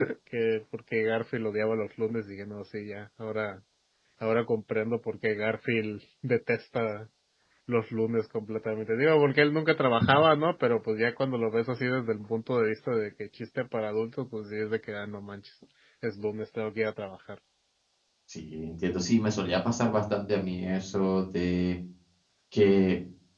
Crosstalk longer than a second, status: none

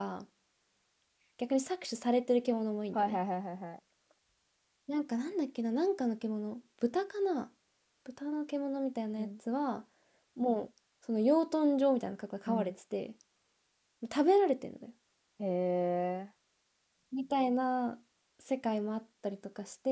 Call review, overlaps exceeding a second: none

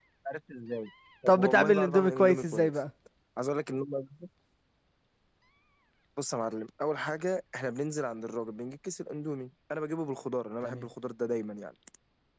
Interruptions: present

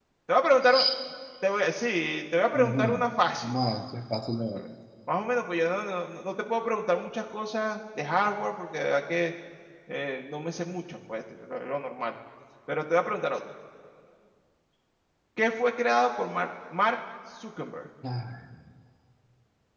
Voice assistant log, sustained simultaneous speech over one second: none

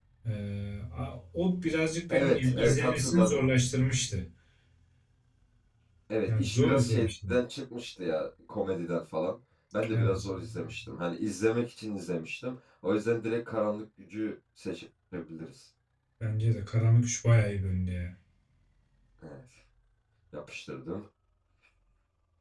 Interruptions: present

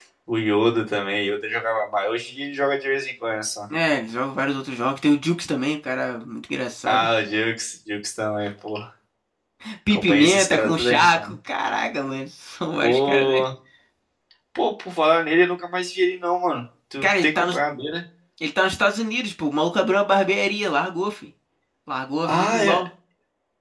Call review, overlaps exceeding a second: present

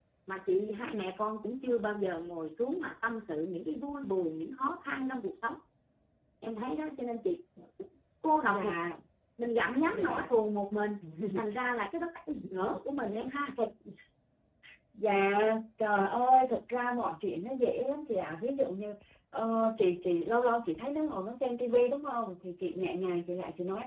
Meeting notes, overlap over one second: none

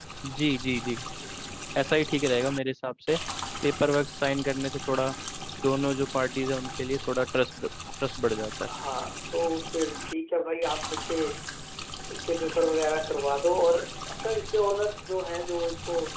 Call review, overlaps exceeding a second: none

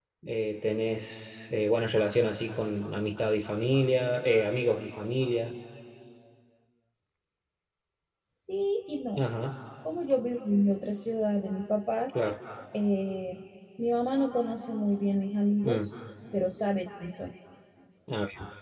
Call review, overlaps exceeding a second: none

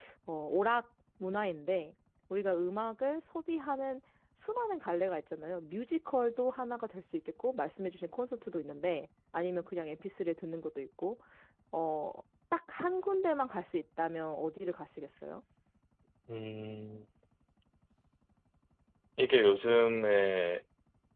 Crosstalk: none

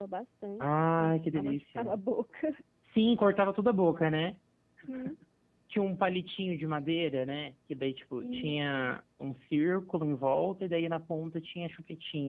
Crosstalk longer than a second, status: present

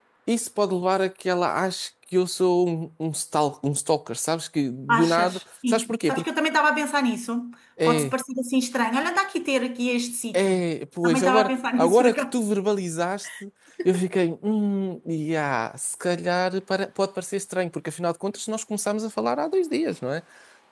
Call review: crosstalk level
present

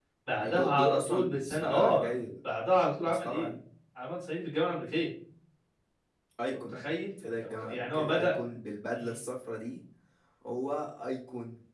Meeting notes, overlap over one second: present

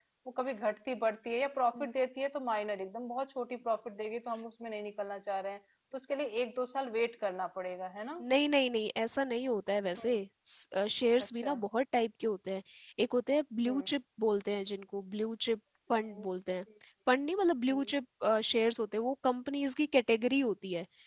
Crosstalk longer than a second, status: none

